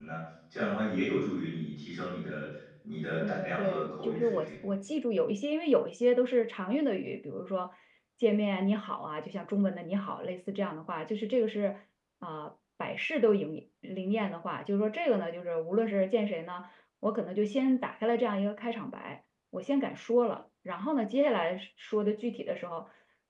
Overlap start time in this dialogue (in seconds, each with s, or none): 3.2 s